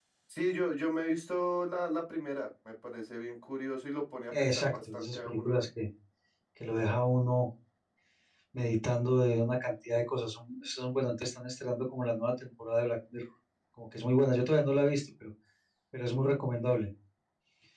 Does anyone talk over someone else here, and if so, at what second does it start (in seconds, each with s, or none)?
4.3 s